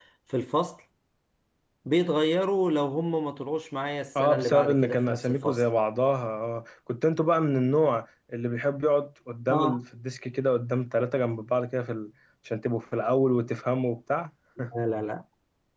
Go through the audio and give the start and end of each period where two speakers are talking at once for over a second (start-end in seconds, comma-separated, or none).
4.2-5.6